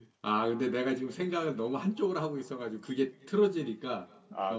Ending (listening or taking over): taking over